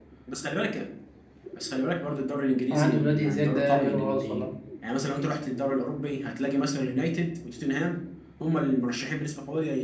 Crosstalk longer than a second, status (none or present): present